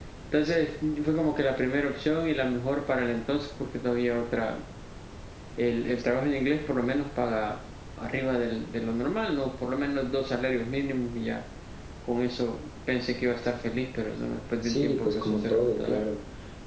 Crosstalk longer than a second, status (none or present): present